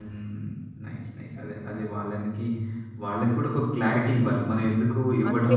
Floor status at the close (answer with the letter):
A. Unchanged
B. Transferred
A